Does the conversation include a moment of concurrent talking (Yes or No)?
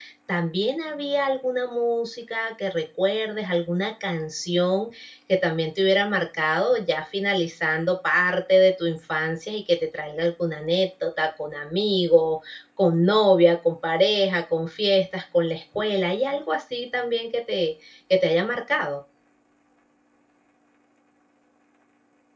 No